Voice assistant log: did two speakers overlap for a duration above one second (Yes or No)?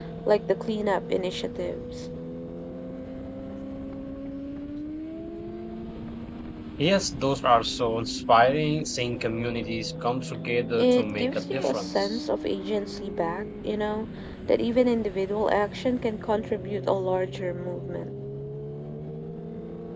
Yes